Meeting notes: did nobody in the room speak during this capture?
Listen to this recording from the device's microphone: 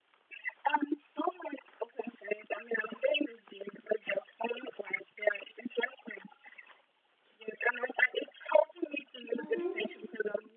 No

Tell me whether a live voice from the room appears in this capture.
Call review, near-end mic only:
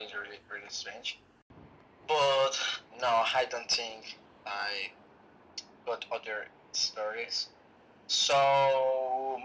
No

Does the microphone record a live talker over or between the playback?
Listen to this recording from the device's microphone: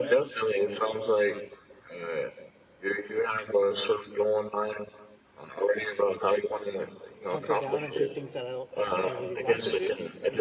Yes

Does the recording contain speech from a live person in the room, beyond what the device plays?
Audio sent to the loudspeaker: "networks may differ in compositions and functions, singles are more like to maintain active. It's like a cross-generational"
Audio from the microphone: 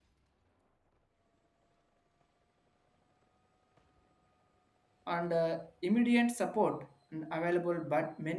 Yes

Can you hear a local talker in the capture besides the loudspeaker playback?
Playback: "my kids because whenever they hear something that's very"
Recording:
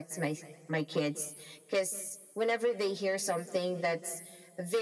No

